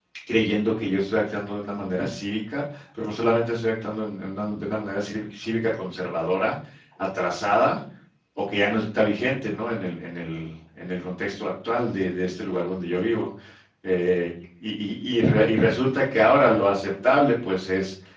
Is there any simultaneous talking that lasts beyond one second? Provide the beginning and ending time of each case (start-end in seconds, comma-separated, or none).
none